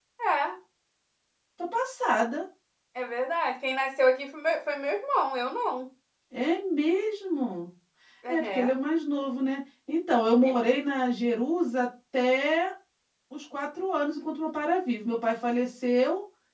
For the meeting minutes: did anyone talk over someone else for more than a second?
No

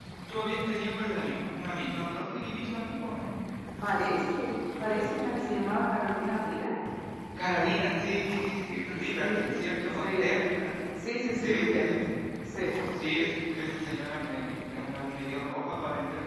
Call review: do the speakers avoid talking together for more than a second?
Yes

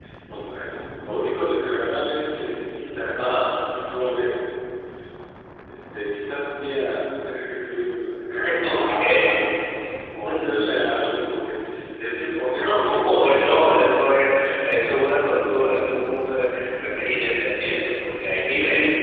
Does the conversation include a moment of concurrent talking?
Yes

